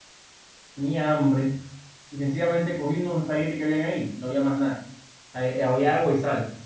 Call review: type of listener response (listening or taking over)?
listening